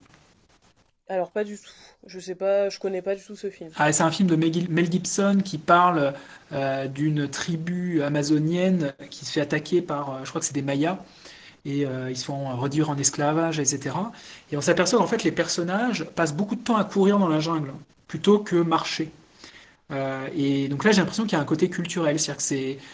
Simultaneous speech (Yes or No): No